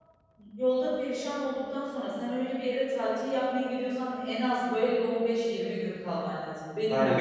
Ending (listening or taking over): taking over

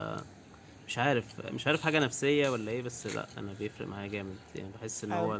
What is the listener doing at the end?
taking over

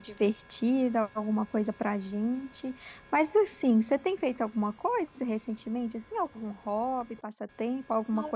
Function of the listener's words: taking over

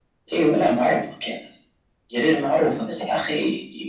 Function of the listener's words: listening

